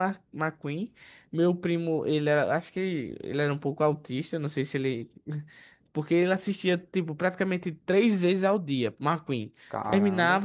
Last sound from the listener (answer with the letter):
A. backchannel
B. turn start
A